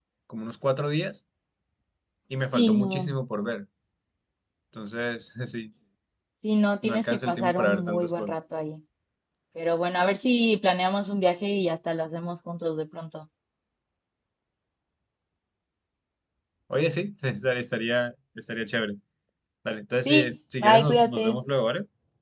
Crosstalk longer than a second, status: present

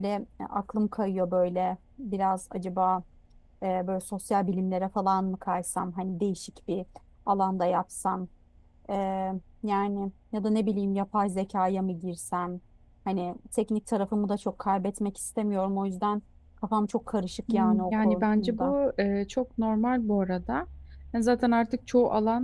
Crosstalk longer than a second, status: present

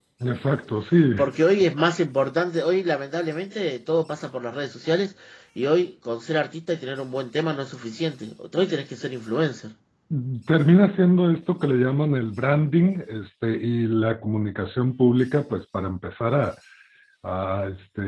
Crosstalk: none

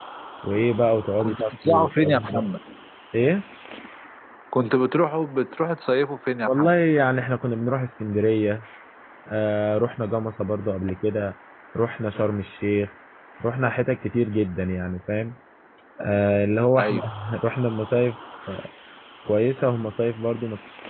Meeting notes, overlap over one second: present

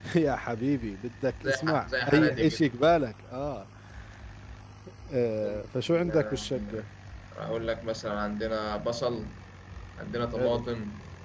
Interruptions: present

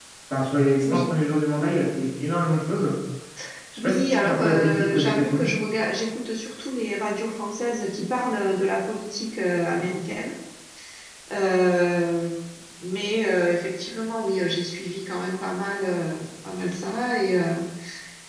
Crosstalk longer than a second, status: present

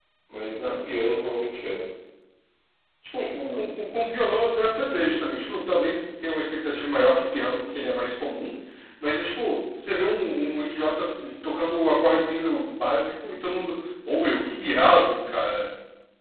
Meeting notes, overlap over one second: none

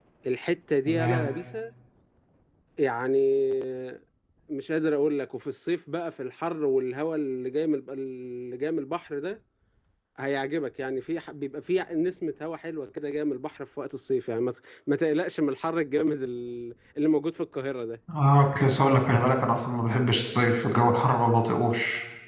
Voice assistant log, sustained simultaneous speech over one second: none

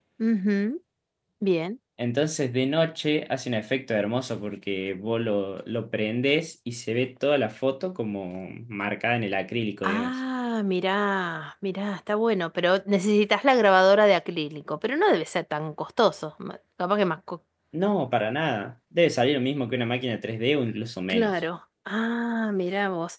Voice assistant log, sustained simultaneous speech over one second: none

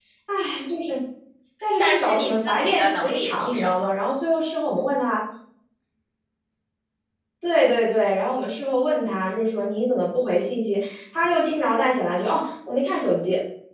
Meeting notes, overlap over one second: present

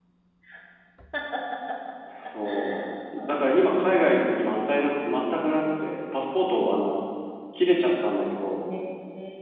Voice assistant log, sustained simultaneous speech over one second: present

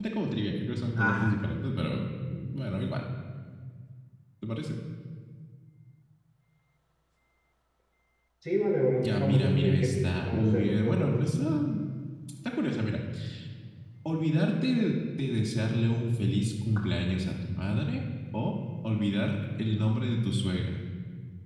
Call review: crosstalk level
present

